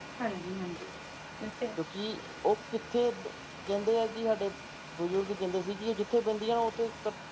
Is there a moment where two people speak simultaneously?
No

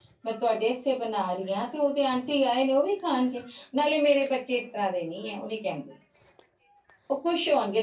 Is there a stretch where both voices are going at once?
No

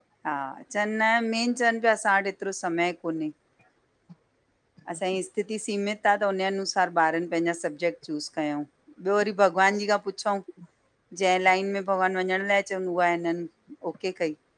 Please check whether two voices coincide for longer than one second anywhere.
No

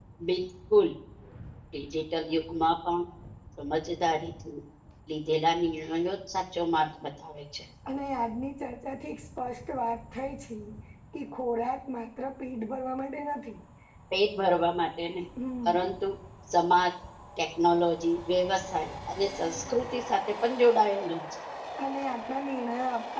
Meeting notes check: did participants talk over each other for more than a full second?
No

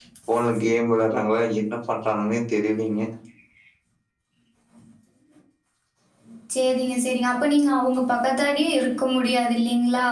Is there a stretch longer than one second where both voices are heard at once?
No

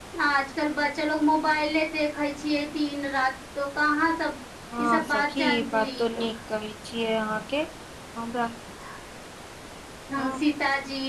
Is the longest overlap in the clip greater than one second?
Yes, from 4.8 s

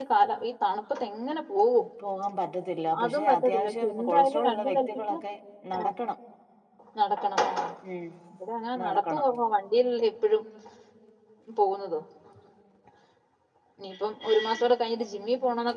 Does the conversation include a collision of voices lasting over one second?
Yes, from 3.0 s

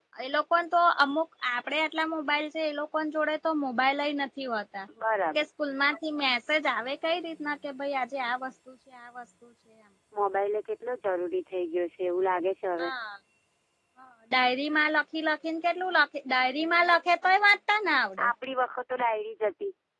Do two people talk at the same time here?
No

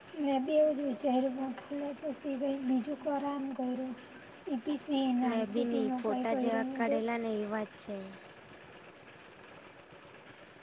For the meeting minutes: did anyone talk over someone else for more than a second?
Yes, from 5.3 s

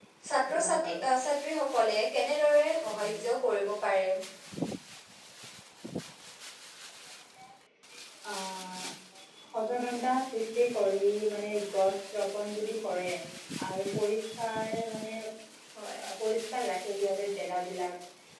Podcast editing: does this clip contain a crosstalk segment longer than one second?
No

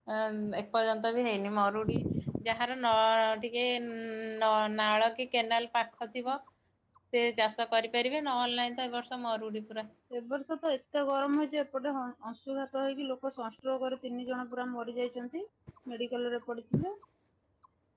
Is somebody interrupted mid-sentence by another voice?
No

